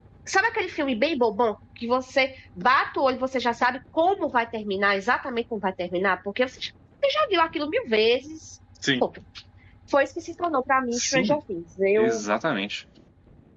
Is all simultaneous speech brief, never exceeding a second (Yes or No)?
Yes